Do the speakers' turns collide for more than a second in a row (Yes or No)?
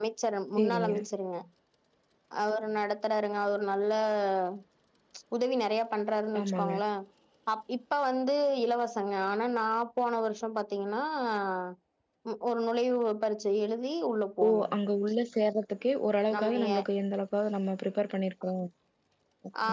No